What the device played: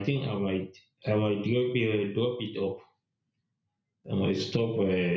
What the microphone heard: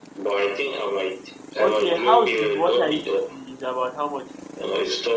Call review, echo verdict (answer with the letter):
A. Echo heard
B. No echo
A